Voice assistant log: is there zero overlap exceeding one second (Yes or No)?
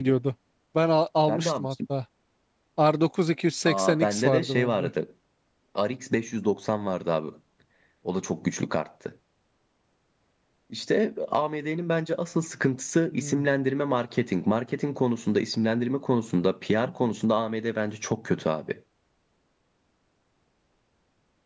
No